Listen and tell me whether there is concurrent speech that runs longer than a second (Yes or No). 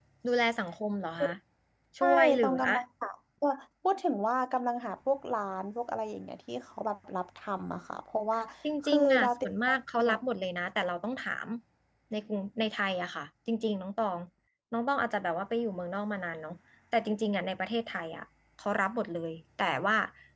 Yes